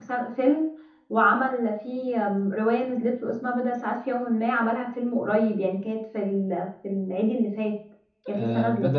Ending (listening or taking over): taking over